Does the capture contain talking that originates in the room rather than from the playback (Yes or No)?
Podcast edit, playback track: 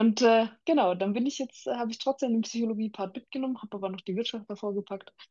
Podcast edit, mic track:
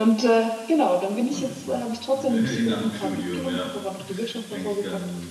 Yes